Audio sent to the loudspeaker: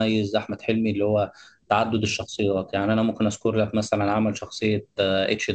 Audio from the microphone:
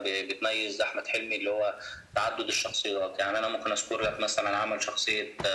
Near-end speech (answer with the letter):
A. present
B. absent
B